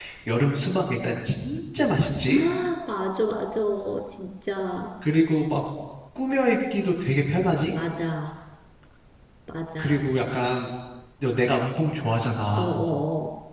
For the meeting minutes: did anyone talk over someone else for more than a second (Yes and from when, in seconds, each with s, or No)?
No